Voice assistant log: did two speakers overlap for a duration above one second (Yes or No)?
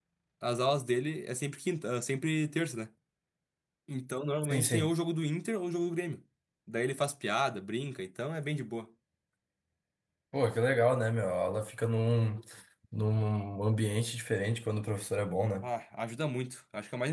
No